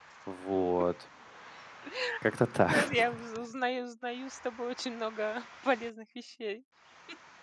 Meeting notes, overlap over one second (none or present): none